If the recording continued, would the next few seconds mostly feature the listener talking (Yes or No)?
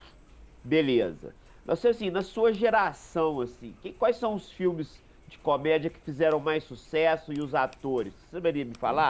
Yes